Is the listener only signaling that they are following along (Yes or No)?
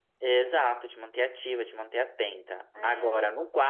Yes